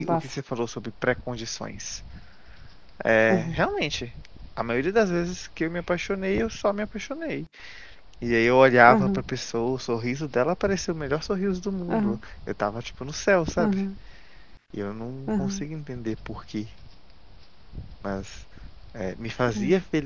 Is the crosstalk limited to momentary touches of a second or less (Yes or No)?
Yes